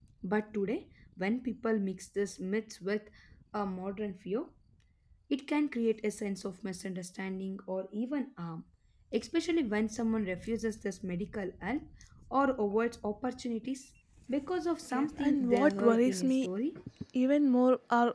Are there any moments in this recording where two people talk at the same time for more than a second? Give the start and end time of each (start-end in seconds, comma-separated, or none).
14.9-16.5